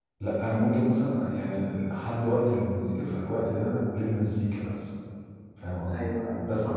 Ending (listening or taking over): taking over